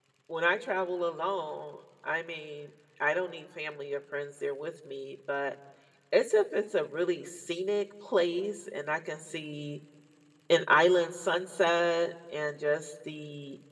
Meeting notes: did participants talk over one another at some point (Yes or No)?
No